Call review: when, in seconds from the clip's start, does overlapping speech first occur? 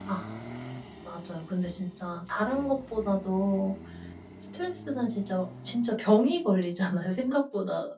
none

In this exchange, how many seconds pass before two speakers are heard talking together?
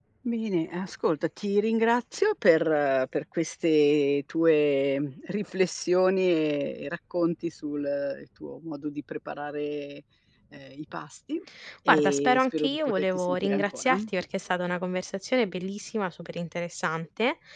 11.9 s

